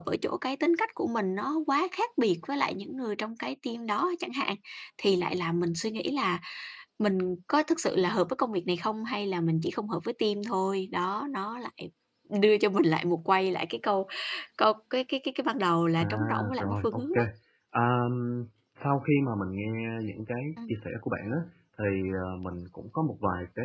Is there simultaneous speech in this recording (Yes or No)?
Yes